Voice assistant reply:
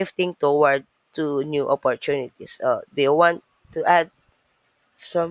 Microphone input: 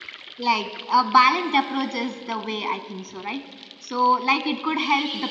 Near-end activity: present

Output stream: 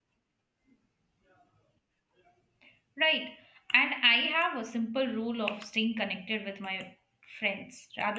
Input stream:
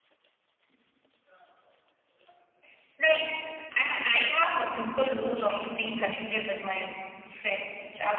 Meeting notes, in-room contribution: none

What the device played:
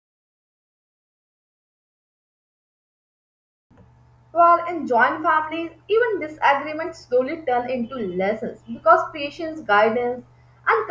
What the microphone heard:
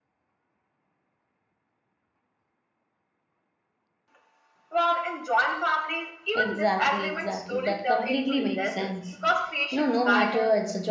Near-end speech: present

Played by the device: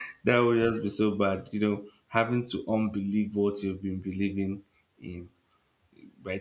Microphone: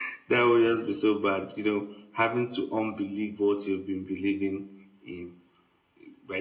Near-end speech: none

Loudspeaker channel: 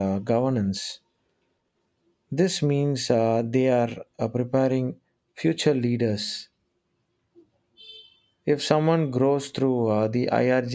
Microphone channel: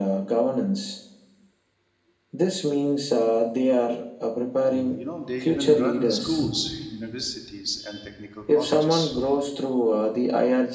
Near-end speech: present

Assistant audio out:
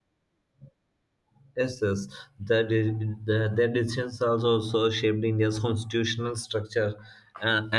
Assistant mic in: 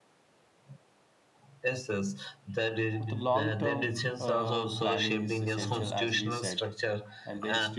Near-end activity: present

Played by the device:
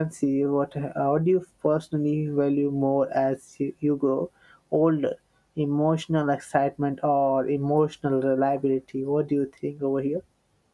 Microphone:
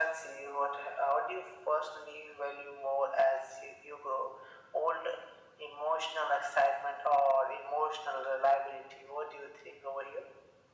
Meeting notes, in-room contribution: none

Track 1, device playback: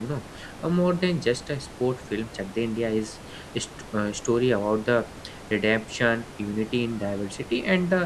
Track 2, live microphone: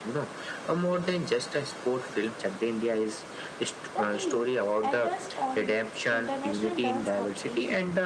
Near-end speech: present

